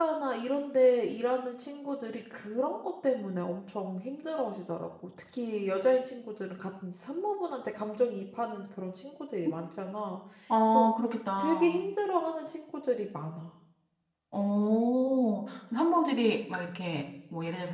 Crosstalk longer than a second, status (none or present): none